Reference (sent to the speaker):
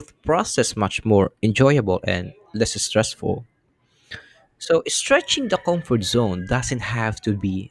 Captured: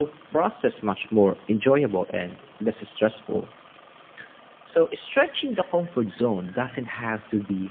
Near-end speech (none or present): none